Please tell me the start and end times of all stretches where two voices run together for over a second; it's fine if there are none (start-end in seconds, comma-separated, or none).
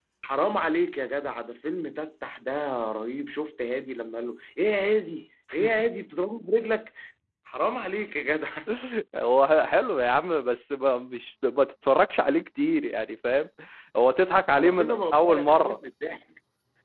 14.6-15.8